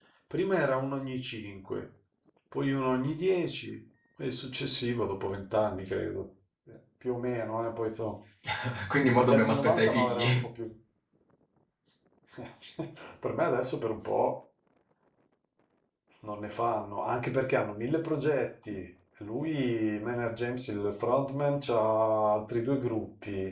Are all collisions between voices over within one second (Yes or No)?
No